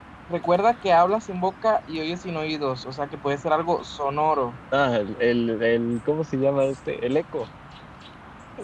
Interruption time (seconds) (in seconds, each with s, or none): none